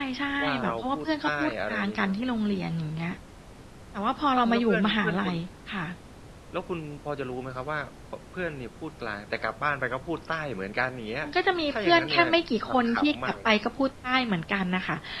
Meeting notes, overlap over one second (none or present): present